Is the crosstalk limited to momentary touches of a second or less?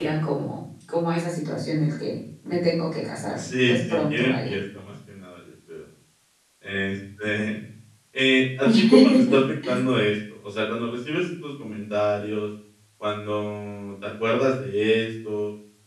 No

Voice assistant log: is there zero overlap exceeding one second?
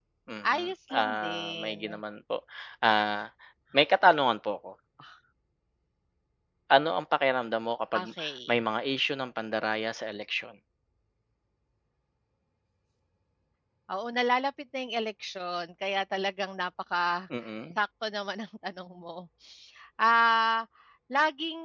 No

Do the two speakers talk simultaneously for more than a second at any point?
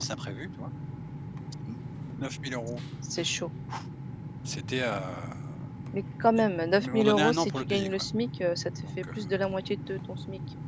Yes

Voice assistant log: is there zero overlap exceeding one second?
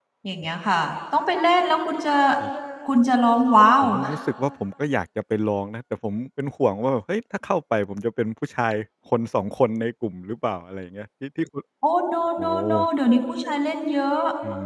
Yes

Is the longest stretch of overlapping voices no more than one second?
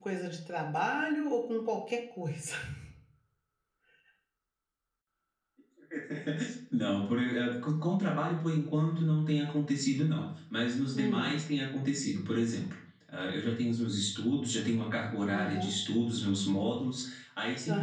Yes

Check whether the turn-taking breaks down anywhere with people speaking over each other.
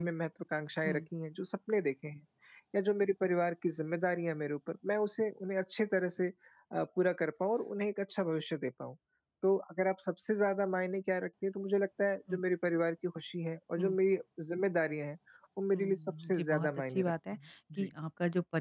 Yes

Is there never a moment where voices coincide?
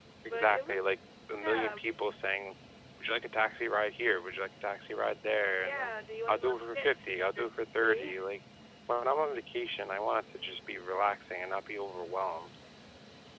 No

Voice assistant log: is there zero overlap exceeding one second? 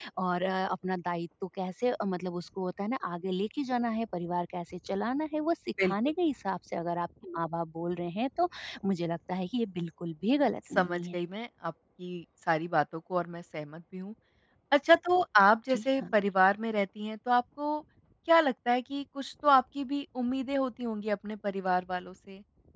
Yes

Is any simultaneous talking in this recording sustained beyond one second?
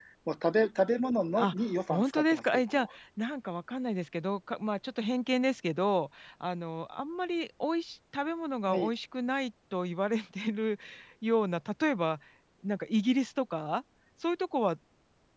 Yes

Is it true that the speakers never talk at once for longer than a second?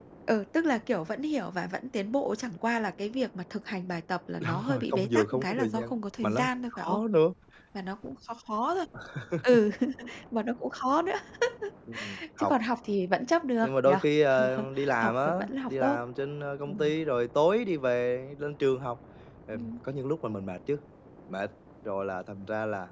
No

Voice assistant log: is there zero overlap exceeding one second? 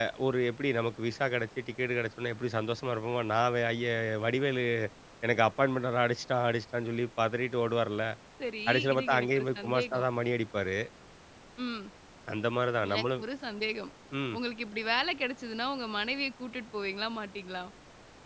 No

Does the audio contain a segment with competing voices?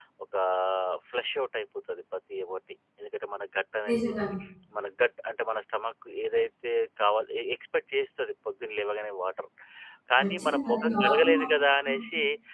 Yes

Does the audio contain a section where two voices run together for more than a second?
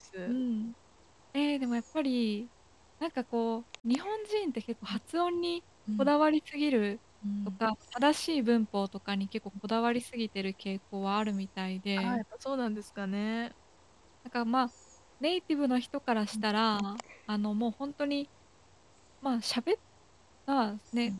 No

